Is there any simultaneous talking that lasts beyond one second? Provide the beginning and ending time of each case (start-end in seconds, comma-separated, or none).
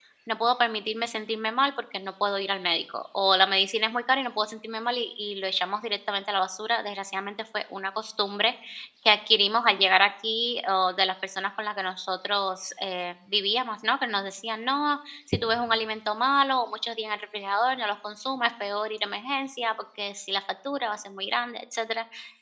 none